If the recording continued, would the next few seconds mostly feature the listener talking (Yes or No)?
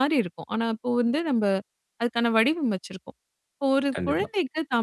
No